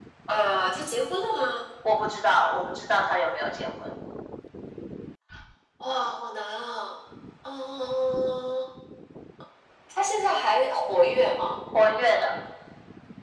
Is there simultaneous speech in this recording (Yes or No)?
No